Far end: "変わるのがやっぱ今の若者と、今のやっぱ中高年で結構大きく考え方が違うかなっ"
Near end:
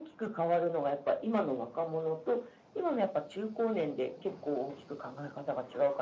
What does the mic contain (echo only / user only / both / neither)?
echo only